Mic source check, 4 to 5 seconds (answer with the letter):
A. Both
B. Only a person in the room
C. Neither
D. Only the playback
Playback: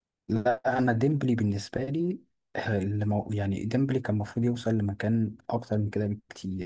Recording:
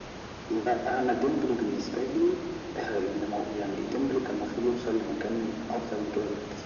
D